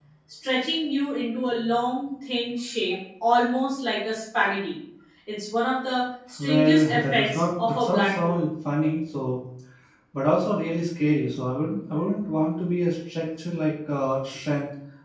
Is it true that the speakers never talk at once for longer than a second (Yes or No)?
No